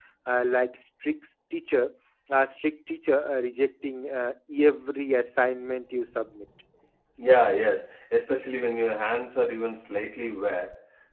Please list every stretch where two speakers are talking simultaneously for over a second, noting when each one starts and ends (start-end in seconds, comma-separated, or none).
none